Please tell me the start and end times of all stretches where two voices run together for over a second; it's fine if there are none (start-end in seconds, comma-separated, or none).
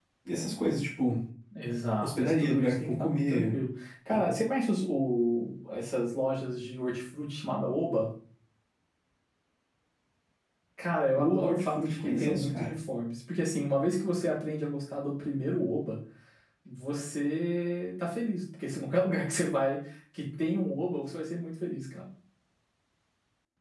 2.0-3.5, 11.2-12.7